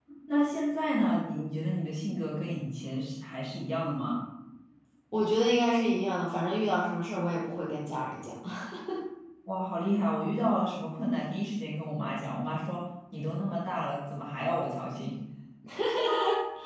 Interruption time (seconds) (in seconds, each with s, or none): none